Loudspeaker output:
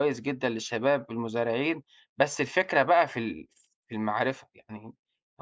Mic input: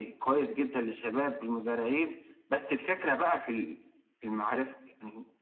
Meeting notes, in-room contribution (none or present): none